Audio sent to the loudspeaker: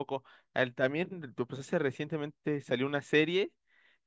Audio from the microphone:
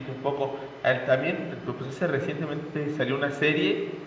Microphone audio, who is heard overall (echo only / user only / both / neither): echo only